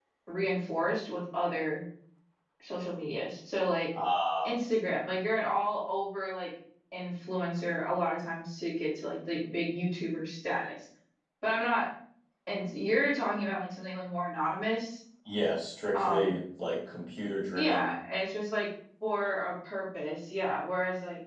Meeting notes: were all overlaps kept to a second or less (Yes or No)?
Yes